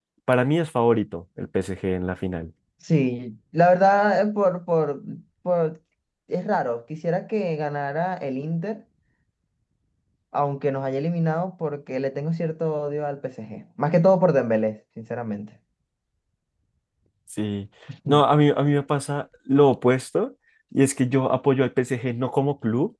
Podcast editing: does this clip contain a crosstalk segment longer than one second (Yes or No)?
No